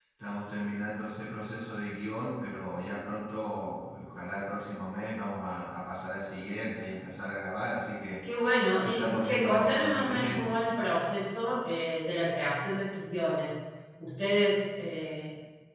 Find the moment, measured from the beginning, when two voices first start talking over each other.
8.8 s

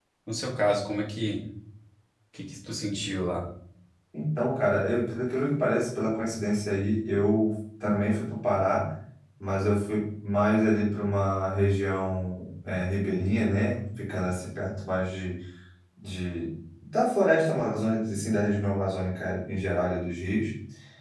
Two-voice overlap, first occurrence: none

